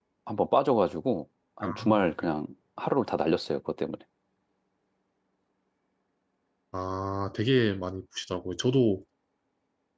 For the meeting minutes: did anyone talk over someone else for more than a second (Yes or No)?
No